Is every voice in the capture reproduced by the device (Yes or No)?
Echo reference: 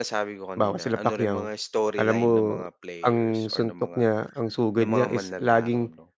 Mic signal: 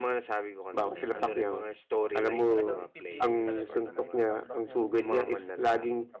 No